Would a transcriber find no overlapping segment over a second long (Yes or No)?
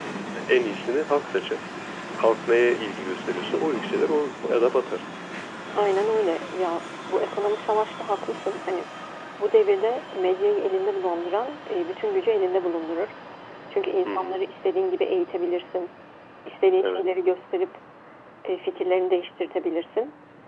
Yes